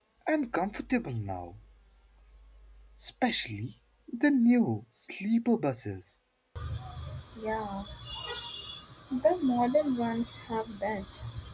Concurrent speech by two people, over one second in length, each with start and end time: none

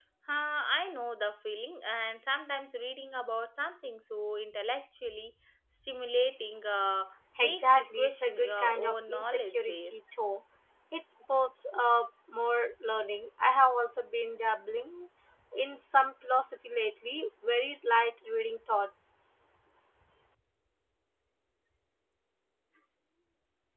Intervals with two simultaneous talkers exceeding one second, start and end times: 7.4-9.9

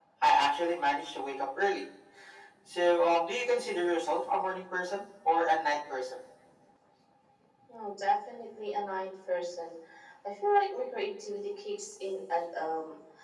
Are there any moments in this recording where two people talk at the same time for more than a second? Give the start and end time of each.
none

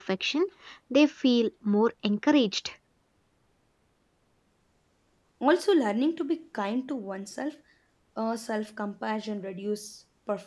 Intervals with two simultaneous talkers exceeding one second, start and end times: none

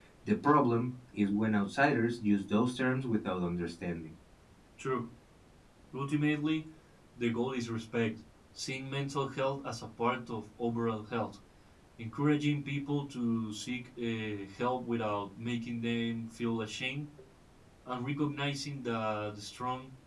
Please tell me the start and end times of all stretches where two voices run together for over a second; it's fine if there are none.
none

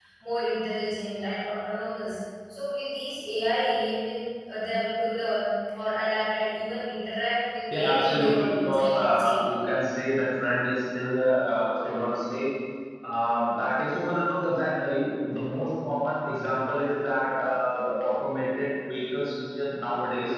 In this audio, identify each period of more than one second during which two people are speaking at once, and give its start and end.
7.7-9.3

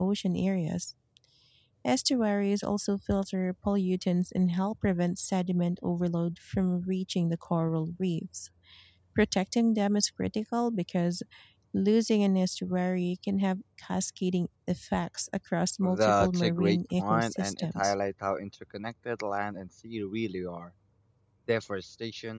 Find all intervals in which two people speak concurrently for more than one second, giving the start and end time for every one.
16.0-17.9

